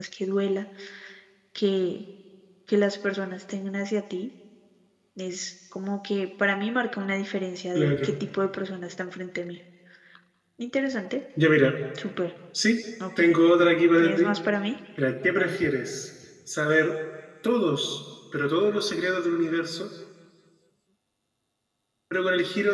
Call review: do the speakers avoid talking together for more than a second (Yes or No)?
Yes